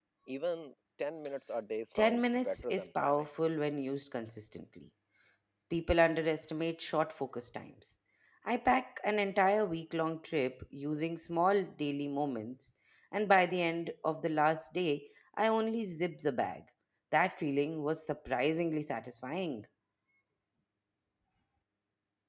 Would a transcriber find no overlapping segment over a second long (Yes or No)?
No